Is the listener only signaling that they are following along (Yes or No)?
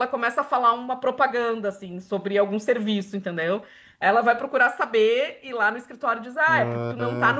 Yes